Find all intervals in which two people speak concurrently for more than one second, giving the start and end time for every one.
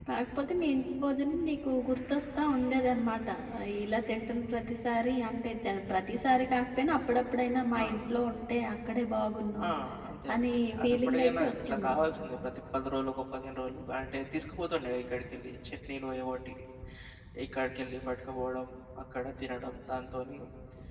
10.3-11.9

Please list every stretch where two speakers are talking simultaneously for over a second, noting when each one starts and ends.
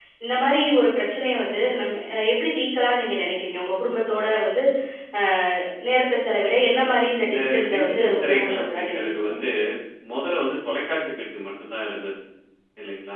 7.3-9.3

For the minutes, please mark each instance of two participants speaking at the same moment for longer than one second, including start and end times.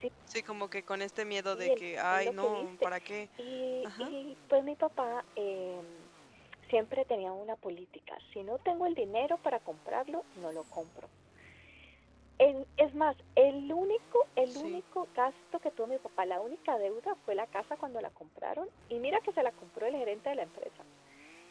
1.4-2.9

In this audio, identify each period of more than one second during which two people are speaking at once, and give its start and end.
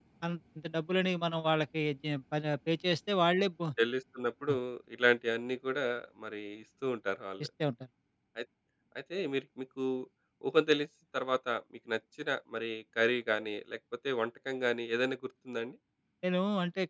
none

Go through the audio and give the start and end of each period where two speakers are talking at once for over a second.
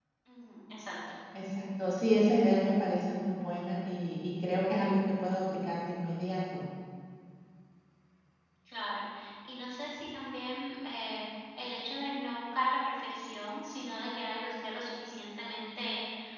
none

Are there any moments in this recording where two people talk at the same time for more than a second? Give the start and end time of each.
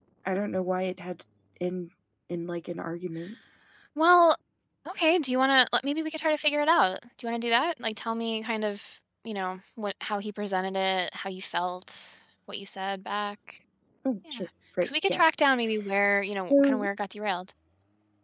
none

